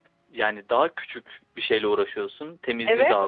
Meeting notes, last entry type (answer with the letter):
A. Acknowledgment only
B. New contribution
B